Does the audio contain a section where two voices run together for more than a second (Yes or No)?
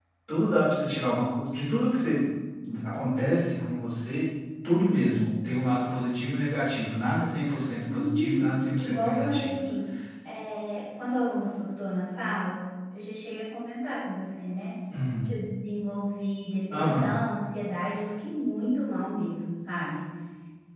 Yes